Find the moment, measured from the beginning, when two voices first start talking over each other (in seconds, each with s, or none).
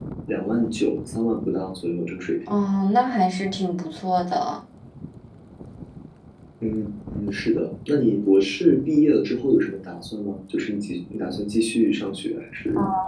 none